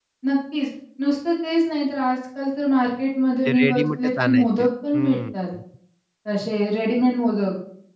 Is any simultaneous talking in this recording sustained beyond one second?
Yes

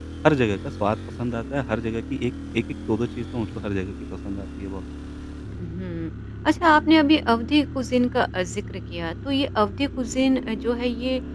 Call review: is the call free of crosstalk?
Yes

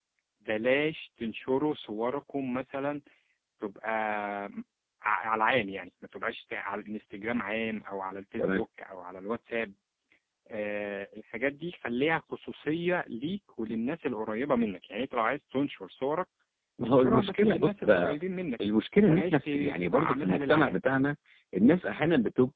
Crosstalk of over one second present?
Yes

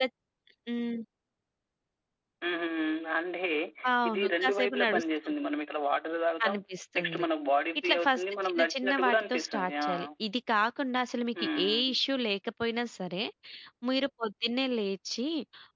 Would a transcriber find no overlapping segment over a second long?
No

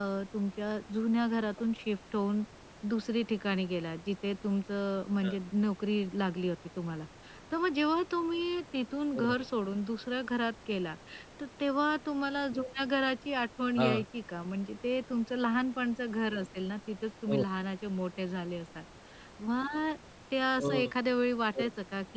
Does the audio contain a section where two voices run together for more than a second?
No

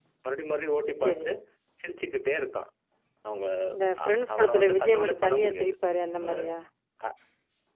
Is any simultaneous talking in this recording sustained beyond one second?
Yes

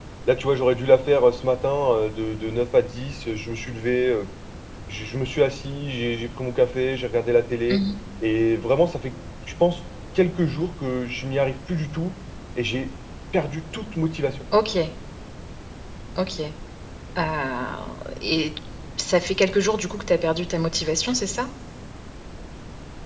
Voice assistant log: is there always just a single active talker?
Yes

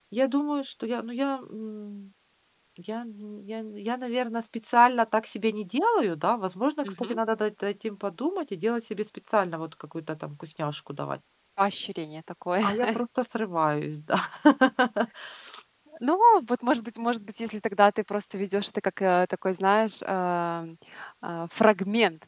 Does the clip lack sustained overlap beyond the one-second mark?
Yes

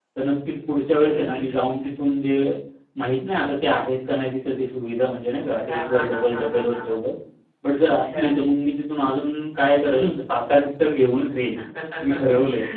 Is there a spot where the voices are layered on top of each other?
Yes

